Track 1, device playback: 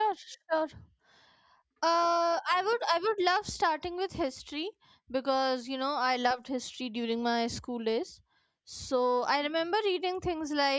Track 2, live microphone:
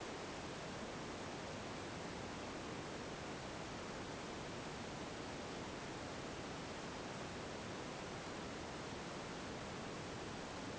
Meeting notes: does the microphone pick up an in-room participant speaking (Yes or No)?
No